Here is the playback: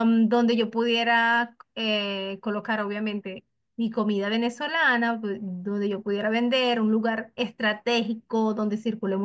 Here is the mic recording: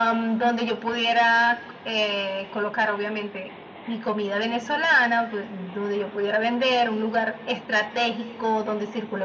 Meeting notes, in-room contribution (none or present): none